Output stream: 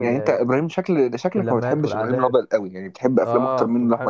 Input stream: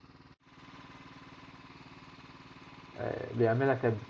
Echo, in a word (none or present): none